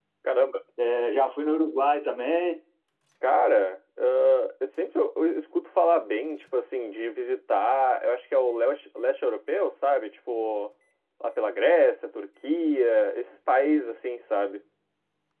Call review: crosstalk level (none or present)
none